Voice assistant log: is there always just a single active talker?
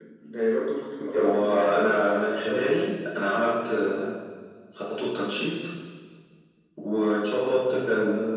No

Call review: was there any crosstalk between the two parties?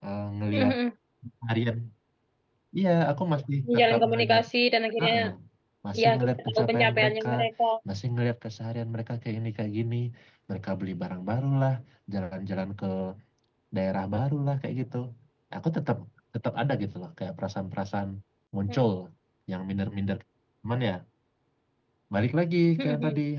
Yes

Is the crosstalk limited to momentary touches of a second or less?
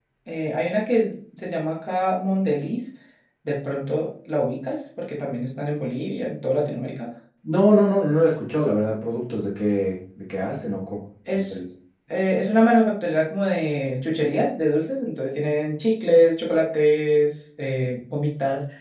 Yes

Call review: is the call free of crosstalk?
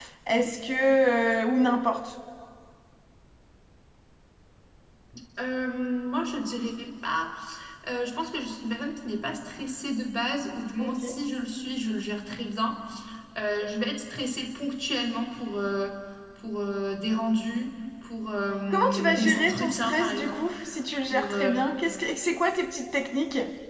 No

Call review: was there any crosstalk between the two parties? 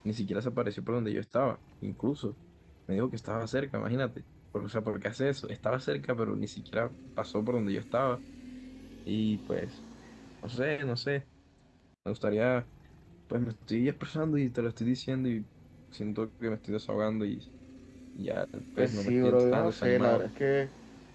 Yes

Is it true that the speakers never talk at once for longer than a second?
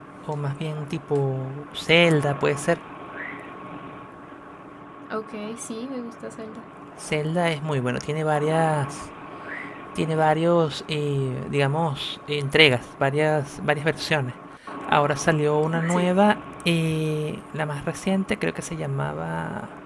Yes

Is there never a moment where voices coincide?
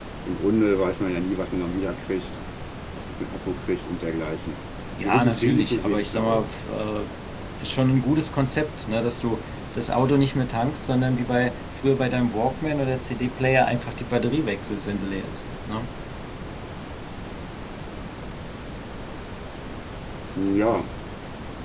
No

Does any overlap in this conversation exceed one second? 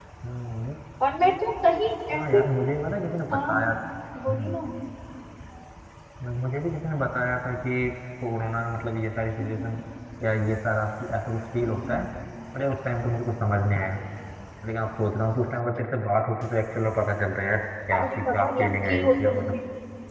Yes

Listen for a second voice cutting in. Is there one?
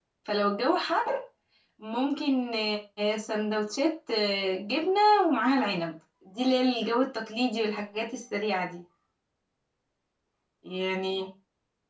No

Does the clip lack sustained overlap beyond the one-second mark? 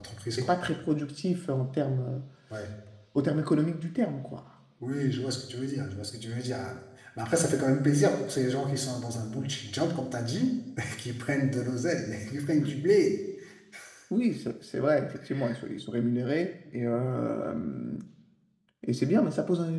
Yes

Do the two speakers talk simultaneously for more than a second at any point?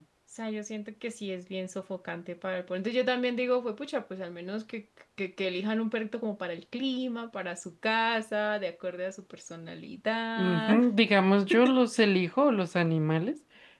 No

